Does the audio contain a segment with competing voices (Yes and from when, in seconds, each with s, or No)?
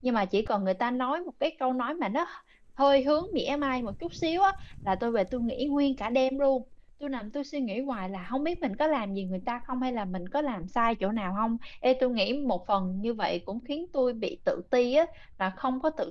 No